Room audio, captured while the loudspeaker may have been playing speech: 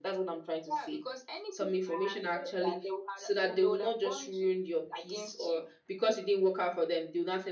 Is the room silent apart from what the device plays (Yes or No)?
Yes